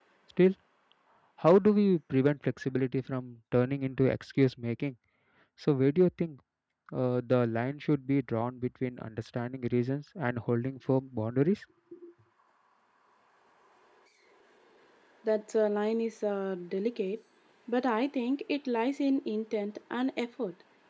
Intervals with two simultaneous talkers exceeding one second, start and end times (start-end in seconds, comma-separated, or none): none